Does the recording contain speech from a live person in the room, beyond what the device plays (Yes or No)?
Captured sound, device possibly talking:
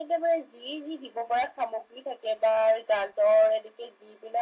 No